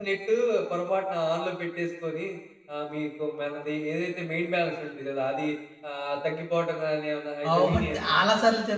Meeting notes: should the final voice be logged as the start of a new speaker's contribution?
Yes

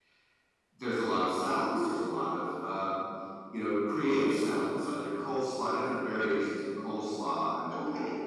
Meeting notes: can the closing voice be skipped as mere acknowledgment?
Yes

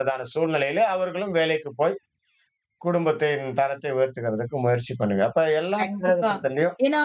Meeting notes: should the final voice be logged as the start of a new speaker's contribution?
Yes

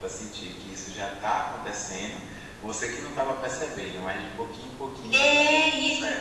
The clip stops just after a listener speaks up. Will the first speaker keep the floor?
No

